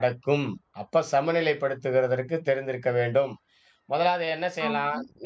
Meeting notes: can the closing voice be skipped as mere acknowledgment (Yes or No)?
No